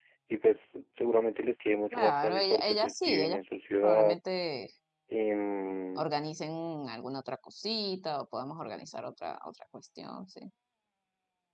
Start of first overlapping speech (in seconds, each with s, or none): 1.9 s